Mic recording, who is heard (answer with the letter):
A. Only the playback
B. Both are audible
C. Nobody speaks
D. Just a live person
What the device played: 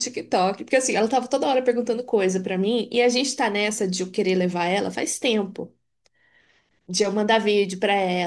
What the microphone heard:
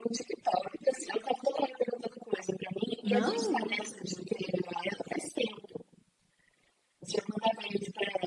B